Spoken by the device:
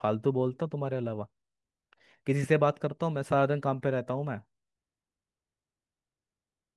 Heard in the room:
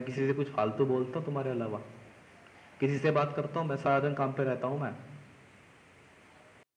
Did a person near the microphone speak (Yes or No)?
No